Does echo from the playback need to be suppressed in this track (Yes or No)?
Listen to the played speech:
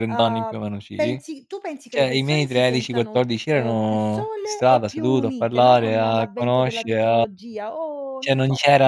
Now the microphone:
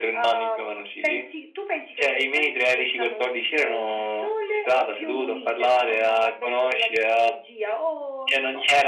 Yes